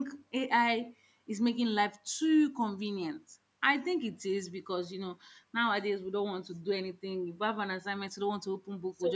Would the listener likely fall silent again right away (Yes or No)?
No